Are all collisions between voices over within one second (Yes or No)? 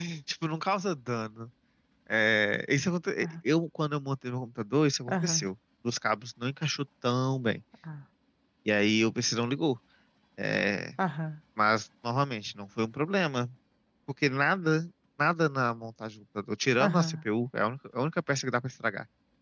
Yes